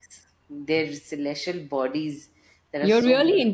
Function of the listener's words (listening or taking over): taking over